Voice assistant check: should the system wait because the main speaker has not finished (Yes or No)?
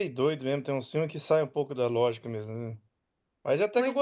Yes